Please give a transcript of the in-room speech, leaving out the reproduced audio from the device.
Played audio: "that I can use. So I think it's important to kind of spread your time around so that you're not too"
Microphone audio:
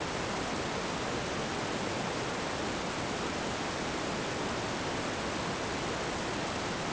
none

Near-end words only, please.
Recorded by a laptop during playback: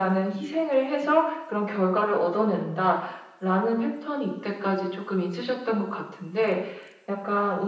none

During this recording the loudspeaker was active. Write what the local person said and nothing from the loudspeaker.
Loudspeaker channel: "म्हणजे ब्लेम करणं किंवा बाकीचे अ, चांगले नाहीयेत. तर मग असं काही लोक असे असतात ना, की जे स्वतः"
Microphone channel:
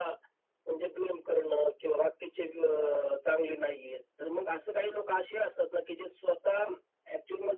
none

